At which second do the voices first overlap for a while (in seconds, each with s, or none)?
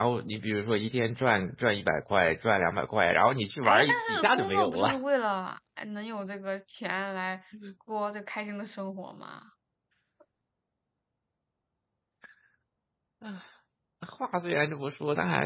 3.6 s